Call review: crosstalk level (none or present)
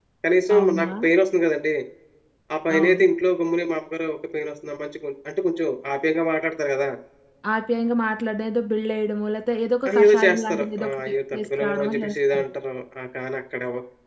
present